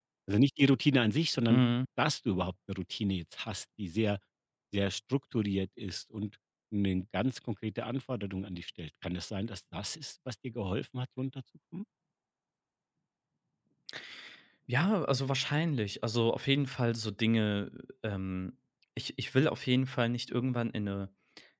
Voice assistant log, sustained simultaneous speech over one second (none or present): none